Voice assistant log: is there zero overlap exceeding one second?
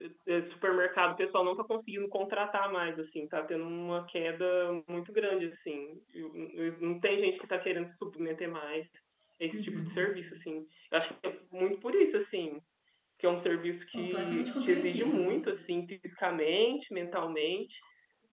No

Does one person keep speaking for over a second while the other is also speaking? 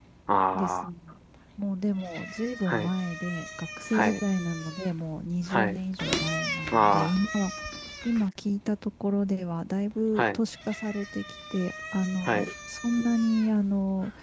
No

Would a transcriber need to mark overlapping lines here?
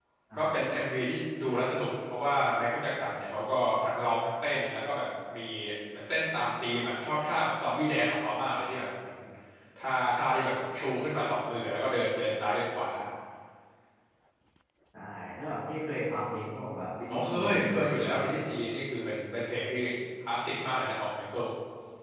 Yes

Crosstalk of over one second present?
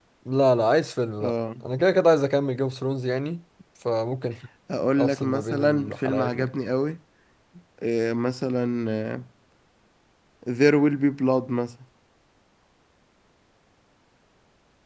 Yes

